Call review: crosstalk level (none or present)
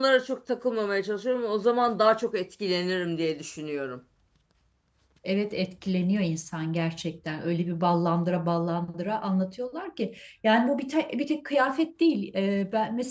none